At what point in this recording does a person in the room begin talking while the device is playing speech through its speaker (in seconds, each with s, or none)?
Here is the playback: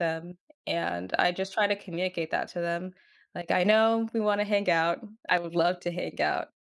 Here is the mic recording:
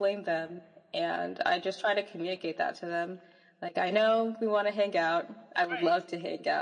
5.7 s